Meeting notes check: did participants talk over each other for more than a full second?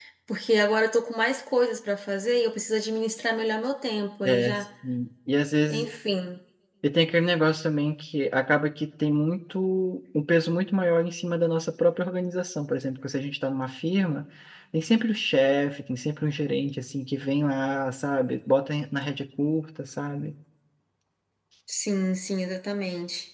No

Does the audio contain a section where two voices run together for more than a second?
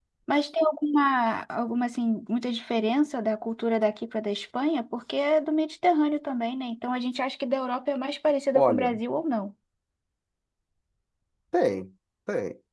No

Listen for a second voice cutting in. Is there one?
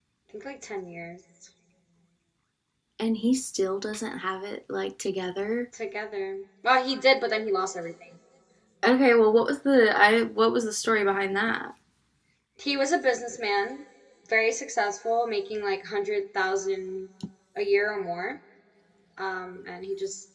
No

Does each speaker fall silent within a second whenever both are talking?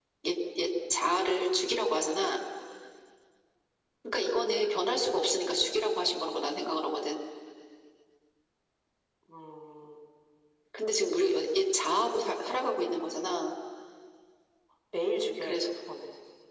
Yes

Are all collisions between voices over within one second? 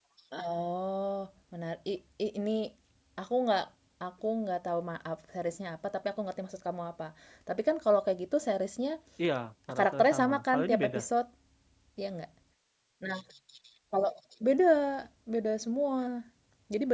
No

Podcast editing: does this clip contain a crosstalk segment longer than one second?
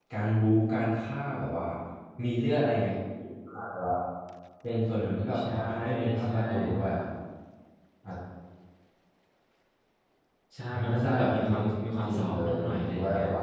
Yes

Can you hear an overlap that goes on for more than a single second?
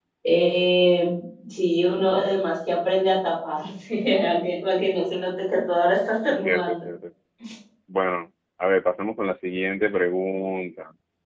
No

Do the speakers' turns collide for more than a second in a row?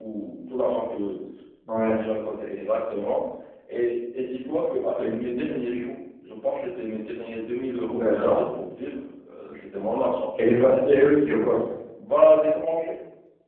No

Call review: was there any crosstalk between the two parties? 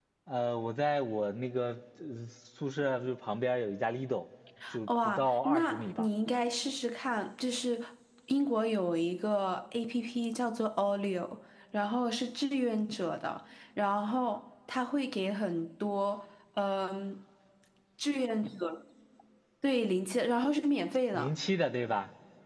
Yes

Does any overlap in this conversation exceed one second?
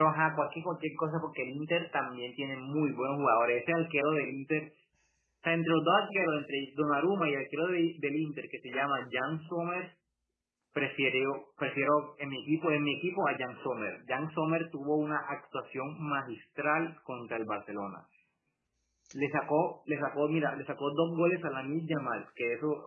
No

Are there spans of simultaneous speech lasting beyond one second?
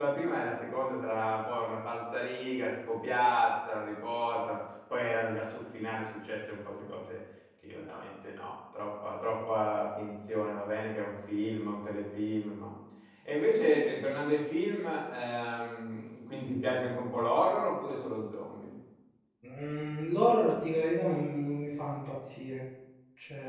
No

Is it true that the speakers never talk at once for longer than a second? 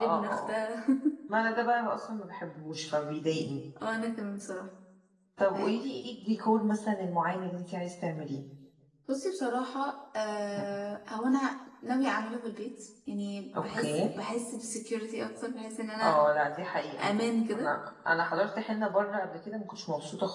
Yes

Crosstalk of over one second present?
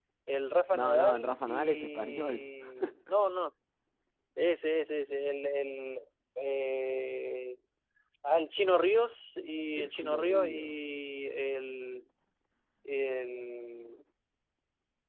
Yes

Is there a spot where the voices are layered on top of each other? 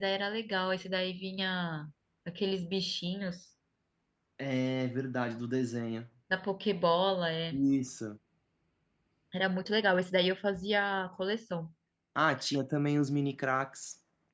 No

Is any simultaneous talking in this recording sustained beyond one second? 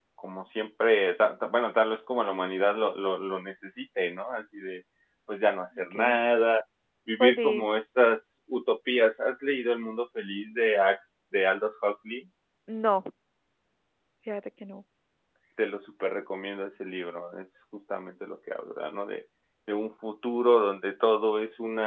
No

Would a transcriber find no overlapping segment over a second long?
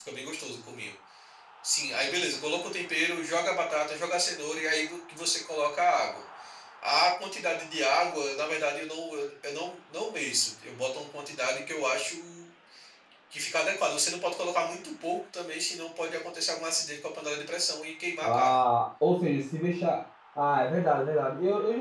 Yes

